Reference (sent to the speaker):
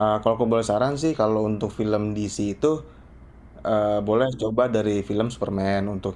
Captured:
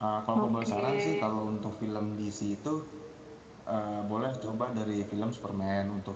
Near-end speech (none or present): present